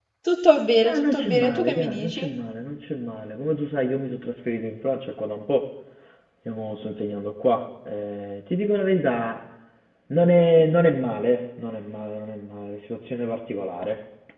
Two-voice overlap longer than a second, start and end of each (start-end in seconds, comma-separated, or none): 0.8-2.3